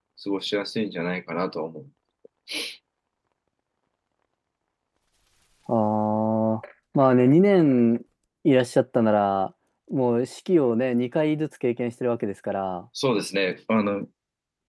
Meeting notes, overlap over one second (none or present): none